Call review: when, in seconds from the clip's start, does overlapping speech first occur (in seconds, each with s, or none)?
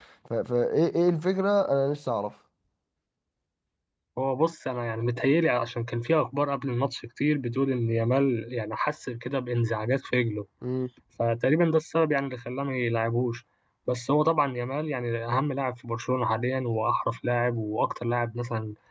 none